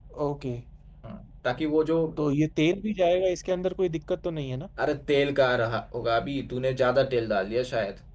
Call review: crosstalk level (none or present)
none